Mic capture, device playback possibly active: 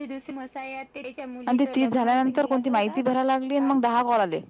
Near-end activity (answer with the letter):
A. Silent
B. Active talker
B